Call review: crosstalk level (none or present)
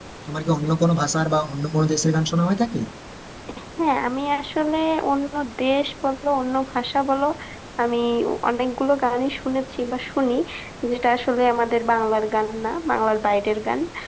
none